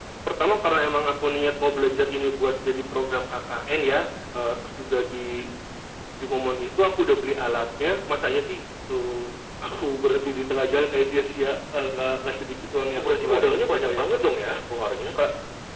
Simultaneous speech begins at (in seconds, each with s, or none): 13.0 s